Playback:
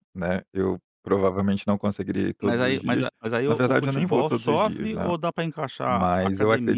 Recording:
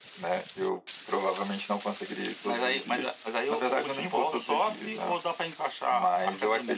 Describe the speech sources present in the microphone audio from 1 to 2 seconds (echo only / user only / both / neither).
echo only